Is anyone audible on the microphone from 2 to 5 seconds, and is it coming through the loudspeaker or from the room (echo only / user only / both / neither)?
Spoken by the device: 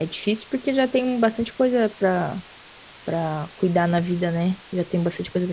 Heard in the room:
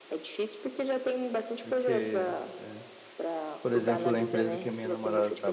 both